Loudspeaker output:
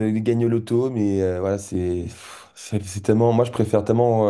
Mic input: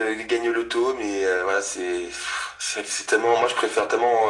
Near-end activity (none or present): none